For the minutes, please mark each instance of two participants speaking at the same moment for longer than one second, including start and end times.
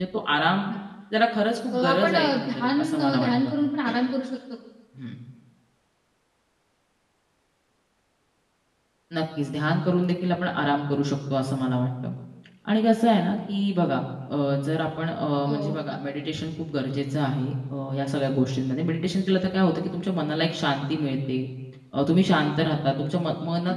1.7-3.5

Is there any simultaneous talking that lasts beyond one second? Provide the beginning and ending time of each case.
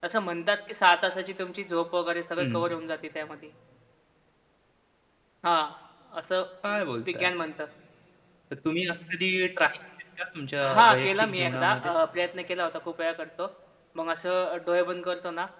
10.7-11.9

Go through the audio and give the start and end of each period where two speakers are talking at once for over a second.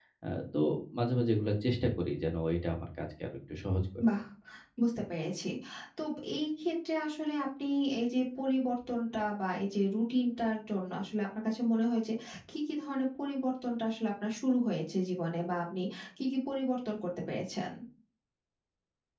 none

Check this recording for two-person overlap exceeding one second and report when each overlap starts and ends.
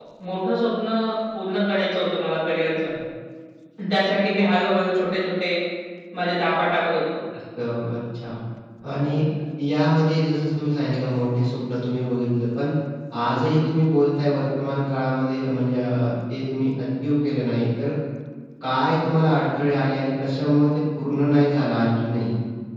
none

